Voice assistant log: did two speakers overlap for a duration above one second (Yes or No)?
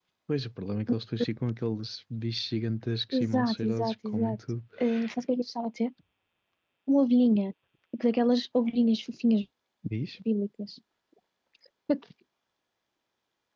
Yes